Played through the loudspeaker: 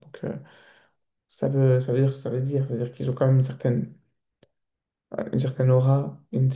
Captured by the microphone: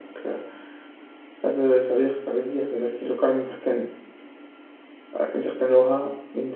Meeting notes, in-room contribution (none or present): none